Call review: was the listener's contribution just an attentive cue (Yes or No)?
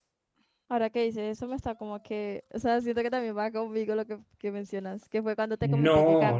No